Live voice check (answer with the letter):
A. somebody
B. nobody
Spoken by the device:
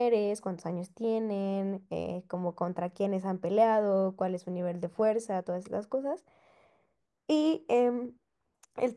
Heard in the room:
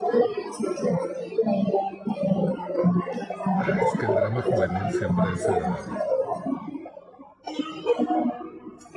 A